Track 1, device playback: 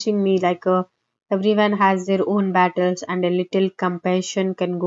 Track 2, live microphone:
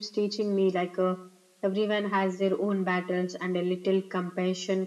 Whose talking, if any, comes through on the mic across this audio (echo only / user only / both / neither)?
echo only